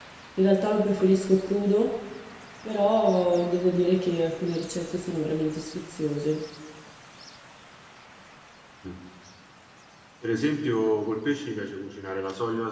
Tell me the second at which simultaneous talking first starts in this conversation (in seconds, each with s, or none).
none